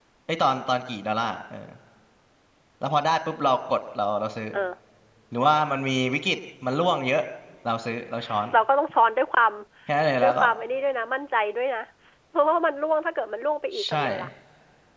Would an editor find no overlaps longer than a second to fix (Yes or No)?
Yes